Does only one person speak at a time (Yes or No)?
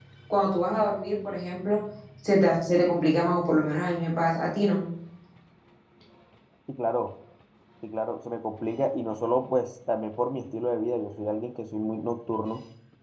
Yes